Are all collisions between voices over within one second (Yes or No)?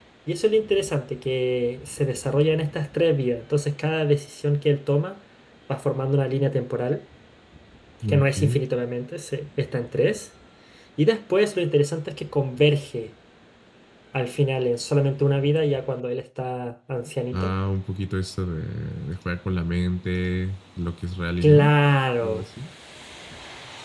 Yes